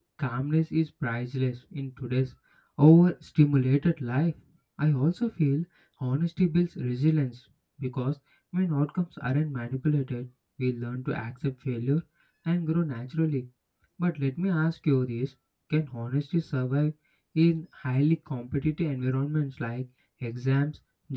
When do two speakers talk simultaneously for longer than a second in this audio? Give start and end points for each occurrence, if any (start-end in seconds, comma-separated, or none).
none